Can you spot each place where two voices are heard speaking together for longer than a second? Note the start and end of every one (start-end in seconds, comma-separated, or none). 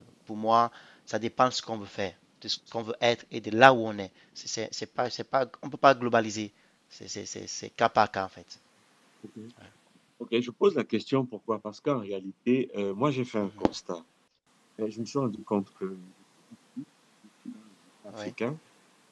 none